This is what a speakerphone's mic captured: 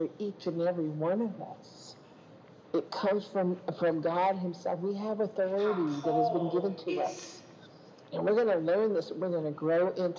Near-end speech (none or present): present